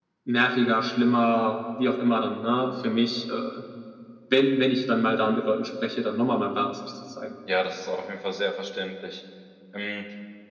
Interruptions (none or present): none